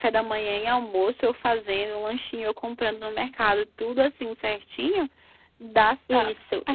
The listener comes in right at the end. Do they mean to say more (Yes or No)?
Yes